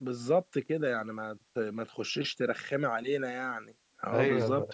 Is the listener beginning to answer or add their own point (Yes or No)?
Yes